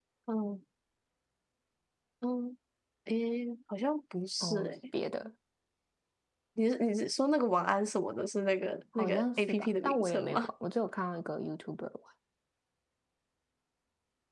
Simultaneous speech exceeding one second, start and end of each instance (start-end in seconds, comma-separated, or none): 9.0-10.5